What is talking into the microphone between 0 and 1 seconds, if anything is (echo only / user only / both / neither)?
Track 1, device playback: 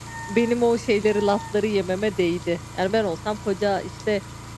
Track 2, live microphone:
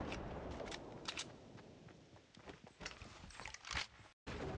neither